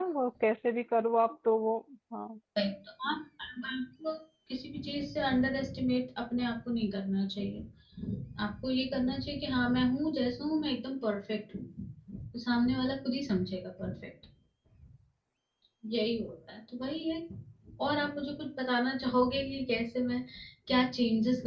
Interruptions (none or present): none